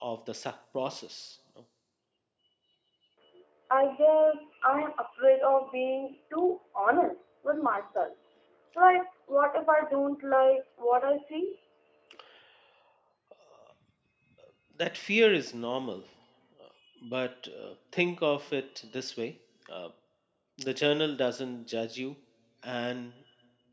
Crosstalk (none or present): none